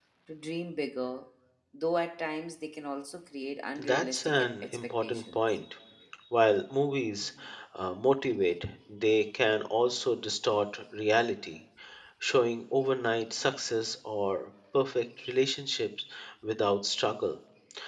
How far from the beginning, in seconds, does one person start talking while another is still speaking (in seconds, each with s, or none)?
3.8 s